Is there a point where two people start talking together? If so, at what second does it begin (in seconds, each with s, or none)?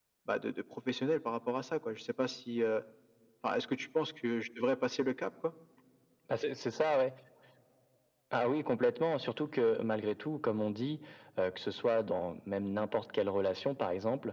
none